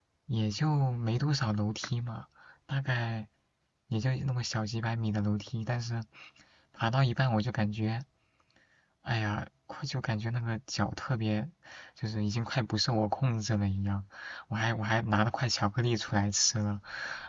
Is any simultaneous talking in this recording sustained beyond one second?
No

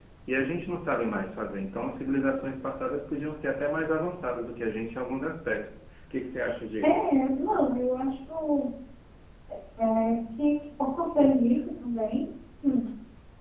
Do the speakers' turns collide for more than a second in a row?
No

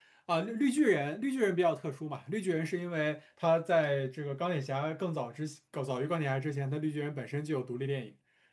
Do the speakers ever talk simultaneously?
No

